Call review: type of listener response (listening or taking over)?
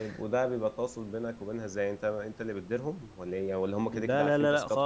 taking over